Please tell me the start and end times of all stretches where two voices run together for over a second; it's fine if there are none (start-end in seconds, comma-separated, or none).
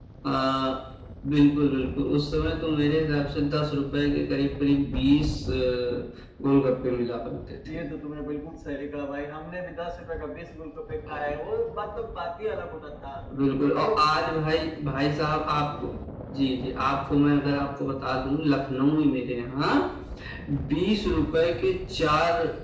none